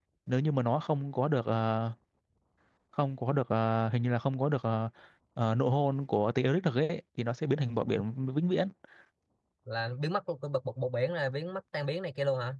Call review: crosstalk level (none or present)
none